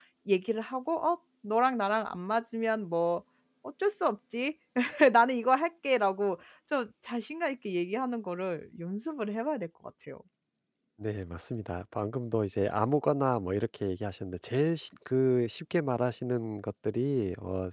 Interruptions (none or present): none